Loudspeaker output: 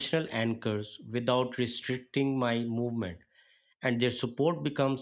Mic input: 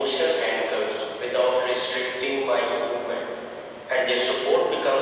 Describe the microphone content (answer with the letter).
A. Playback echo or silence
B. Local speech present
A